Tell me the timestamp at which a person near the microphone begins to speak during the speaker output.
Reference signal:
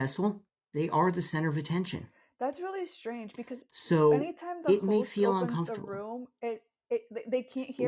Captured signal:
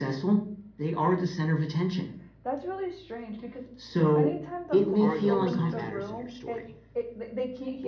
4.7 s

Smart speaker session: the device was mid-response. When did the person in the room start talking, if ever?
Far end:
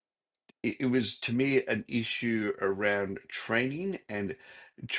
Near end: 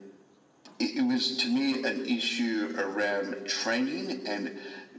none

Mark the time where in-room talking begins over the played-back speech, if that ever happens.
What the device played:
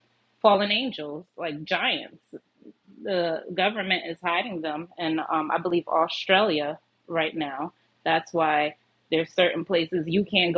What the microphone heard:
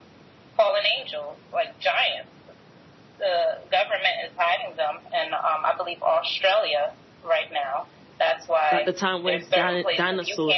8.7 s

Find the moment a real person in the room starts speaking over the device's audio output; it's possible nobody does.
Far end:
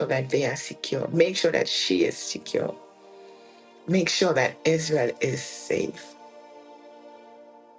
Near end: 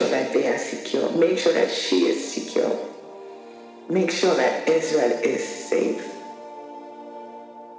none

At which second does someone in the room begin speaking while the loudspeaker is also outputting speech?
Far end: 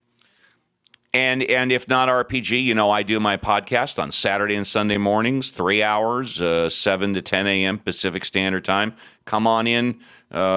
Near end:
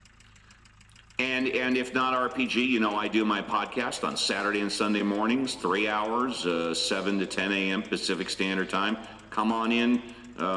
none

